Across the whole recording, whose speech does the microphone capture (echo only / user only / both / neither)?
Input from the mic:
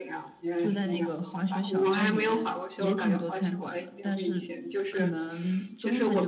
echo only